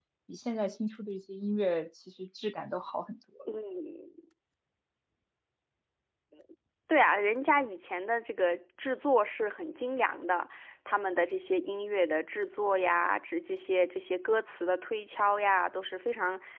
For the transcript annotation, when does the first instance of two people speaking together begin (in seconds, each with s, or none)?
none